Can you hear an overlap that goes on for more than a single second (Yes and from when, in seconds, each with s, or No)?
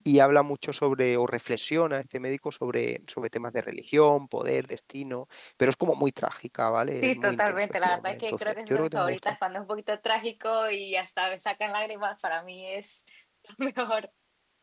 Yes, from 7.0 s